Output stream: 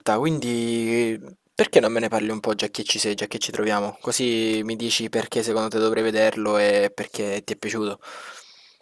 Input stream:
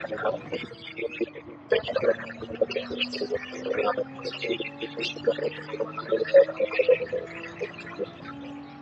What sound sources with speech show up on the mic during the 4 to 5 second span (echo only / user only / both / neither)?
echo only